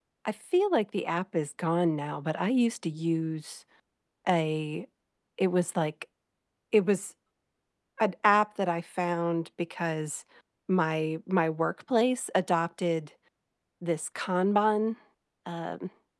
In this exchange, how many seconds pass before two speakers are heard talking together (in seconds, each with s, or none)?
none